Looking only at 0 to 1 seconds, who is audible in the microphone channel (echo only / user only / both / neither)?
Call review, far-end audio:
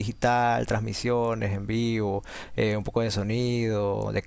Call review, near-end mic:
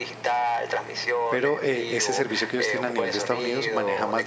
echo only